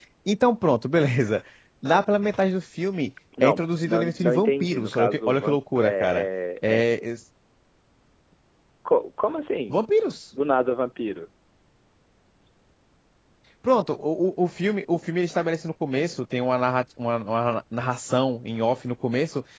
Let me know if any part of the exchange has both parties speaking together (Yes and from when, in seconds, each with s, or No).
Yes, from 3.4 s